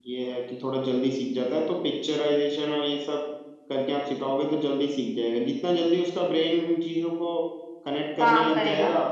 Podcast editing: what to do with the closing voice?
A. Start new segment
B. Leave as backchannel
B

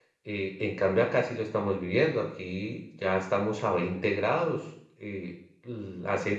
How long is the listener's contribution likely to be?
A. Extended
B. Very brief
B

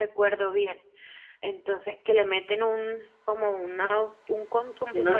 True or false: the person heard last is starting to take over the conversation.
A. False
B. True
A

